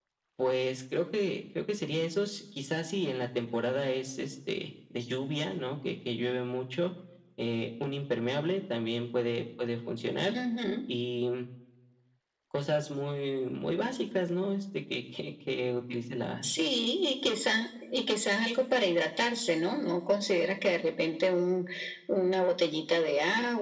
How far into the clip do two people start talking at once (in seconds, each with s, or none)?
none